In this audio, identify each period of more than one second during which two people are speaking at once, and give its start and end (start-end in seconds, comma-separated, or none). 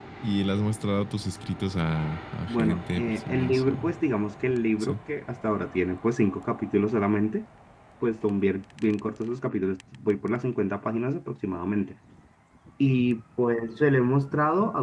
2.5-3.9